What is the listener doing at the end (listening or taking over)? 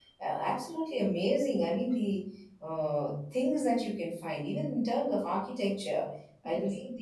listening